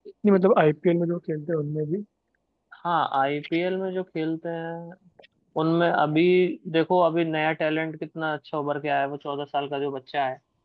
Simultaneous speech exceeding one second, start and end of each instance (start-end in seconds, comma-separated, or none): none